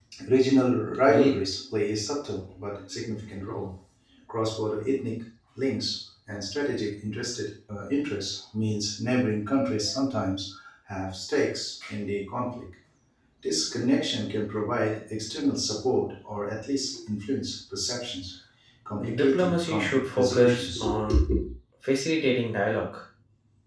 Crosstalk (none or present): present